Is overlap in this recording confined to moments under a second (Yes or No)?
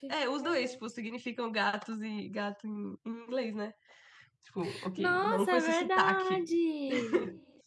No